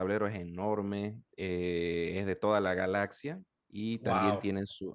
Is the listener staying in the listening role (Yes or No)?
Yes